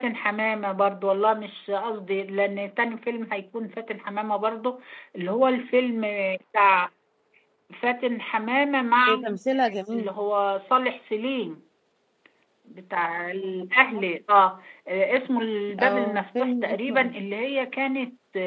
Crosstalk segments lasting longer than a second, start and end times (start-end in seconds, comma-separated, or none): 15.8-17.1